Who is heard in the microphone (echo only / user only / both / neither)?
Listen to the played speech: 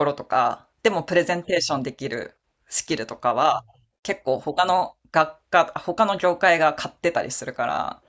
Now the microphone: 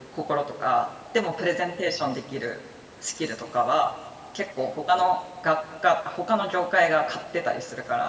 echo only